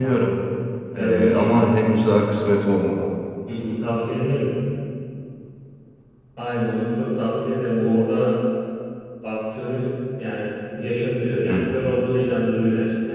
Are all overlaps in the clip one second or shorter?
Yes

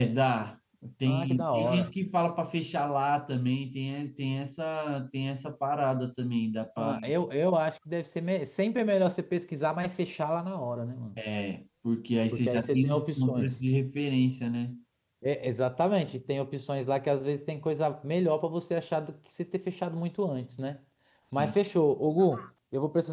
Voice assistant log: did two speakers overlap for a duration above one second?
Yes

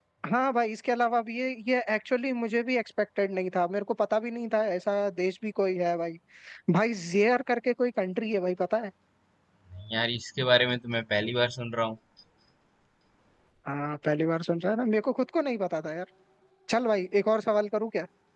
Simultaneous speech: No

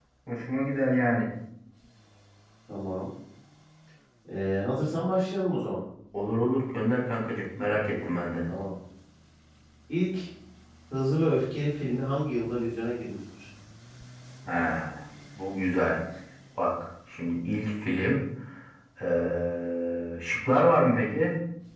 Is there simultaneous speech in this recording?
No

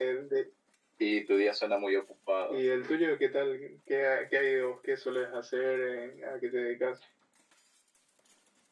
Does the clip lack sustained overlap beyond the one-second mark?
Yes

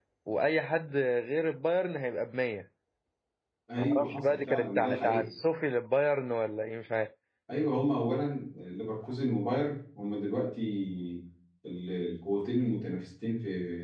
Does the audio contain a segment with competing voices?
Yes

